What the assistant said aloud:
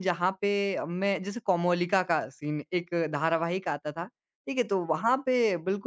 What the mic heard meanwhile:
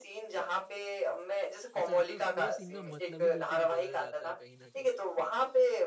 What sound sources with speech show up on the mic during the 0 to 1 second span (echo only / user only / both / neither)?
echo only